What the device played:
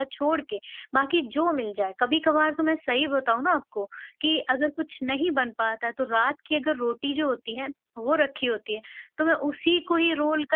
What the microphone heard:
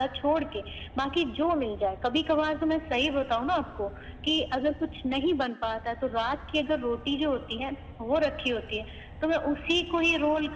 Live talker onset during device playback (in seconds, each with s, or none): none